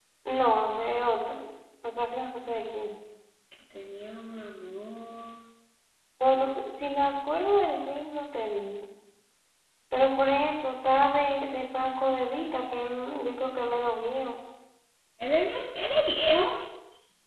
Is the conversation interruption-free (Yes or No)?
Yes